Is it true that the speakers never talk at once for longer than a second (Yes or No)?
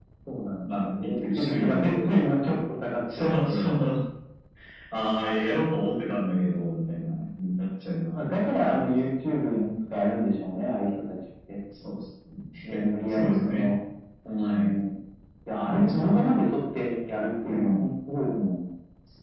No